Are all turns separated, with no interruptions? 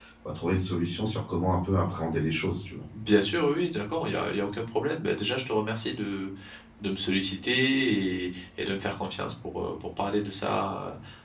Yes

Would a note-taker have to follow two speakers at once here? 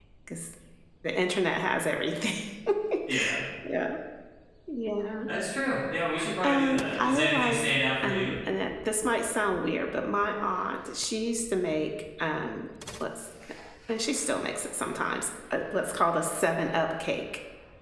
Yes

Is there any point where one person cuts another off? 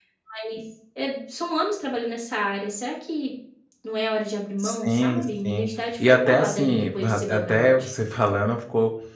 Yes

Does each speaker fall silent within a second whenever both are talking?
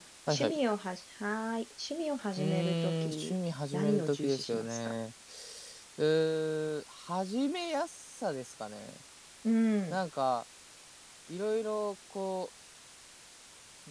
No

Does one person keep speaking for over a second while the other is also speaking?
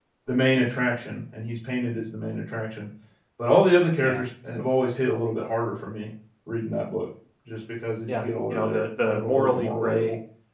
Yes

